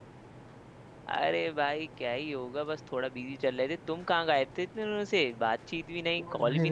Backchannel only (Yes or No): No